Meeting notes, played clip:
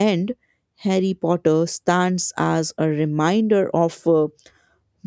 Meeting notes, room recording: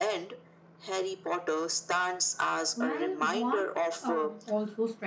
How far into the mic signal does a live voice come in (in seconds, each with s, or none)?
2.7 s